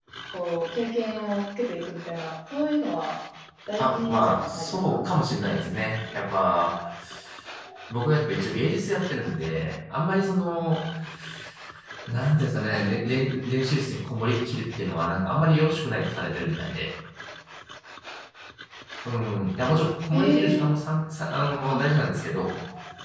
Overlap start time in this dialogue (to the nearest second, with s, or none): 4 s